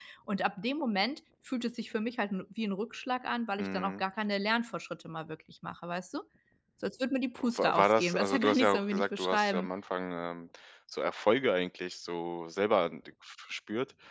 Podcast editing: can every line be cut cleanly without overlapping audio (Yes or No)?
No